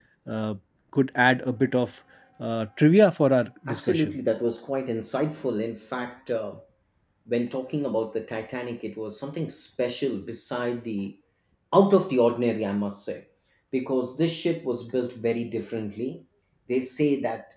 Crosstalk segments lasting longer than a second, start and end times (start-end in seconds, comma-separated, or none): none